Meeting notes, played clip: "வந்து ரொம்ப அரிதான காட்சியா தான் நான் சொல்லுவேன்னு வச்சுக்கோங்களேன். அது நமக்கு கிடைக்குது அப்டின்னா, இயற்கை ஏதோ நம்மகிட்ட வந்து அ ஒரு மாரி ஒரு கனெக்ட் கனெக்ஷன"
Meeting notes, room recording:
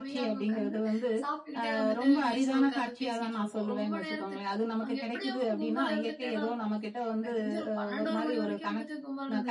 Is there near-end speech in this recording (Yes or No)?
Yes